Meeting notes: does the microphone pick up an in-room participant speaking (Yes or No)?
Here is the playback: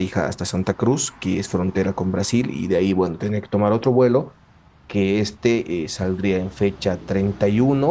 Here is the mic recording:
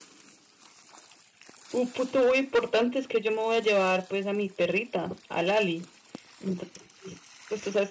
Yes